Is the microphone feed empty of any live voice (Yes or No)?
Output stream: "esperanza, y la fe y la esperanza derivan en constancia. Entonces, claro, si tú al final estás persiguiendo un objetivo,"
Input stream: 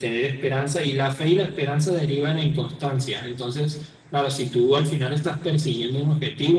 Yes